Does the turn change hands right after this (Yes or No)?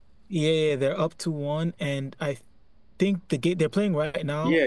Yes